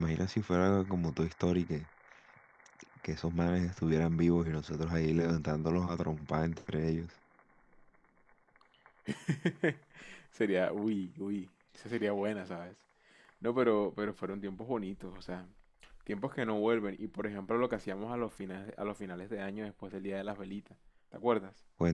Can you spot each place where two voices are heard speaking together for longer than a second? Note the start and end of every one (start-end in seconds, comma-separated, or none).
none